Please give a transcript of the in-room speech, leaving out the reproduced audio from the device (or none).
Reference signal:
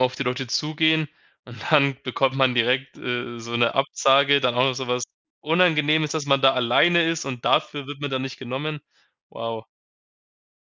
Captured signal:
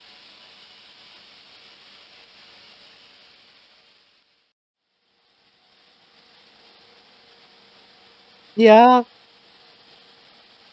ja.